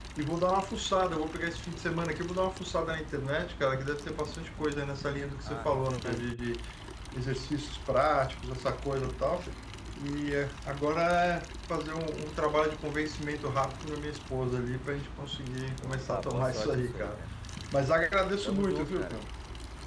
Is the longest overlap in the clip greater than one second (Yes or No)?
Yes